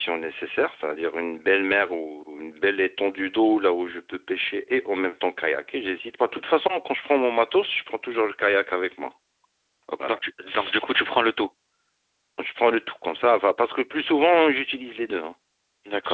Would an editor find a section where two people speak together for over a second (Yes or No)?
No